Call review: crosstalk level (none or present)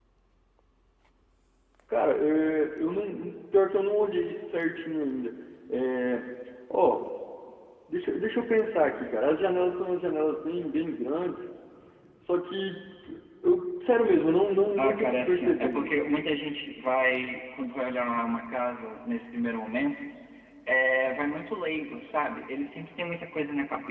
present